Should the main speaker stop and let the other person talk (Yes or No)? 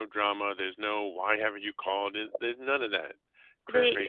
Yes